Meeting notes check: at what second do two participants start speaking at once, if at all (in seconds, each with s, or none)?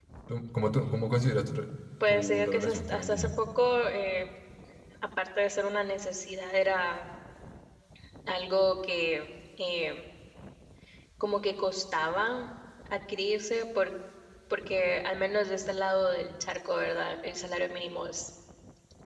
2.1 s